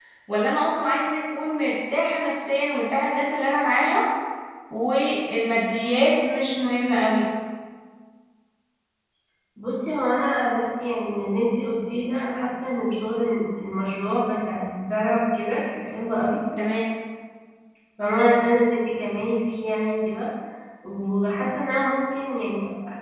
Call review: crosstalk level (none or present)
none